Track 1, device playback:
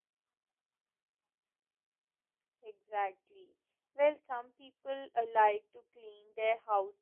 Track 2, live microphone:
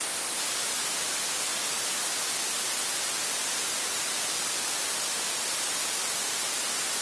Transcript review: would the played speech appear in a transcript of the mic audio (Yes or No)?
No